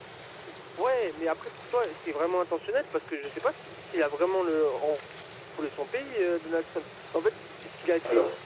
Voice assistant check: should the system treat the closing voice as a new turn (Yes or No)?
No